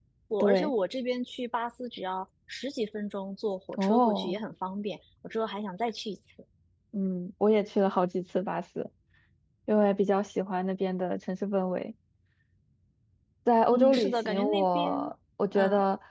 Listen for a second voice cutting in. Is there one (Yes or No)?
Yes